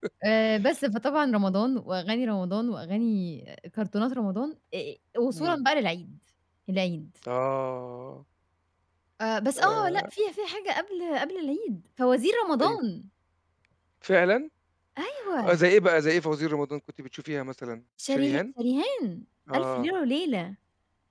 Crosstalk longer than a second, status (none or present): none